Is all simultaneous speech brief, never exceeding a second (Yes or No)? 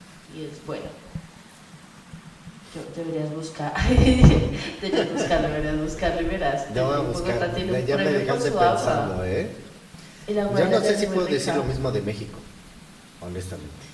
No